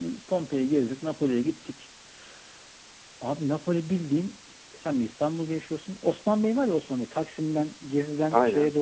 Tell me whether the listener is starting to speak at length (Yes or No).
No